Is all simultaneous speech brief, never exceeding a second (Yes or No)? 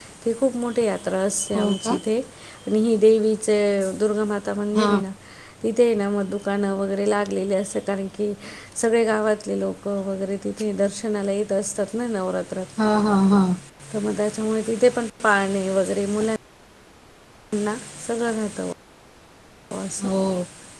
Yes